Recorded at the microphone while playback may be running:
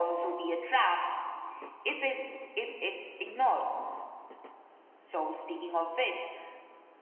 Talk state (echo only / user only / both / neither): echo only